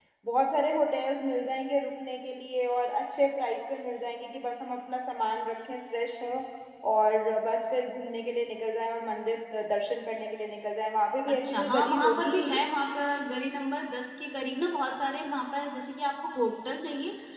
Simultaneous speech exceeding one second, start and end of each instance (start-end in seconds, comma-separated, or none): 11.3-12.6